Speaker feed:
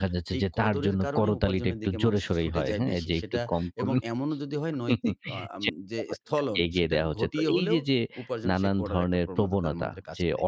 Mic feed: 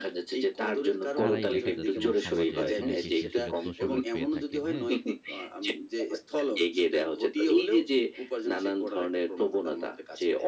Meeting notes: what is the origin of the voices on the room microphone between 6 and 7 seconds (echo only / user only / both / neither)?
echo only